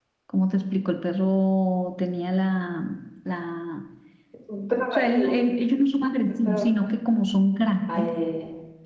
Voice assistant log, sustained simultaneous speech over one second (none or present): none